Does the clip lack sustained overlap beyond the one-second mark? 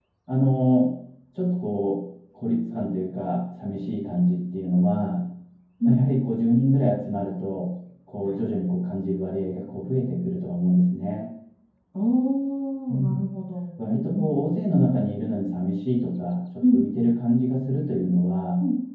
Yes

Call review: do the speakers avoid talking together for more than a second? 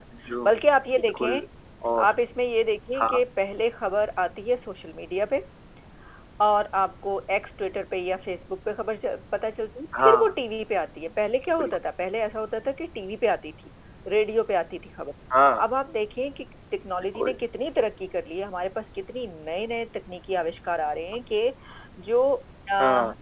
Yes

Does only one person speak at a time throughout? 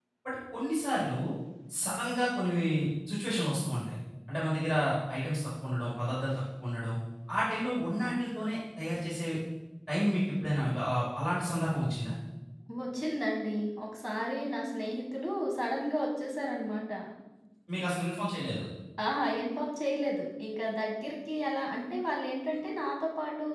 Yes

